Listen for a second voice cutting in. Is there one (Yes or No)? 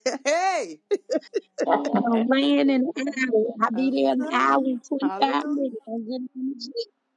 Yes